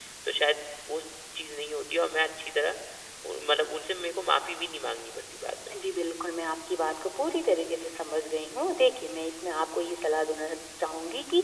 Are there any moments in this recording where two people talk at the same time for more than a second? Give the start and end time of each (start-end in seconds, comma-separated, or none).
none